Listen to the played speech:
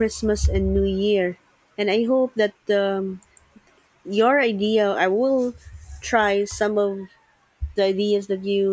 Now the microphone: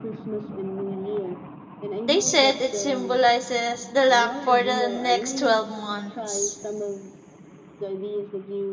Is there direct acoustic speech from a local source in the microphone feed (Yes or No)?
Yes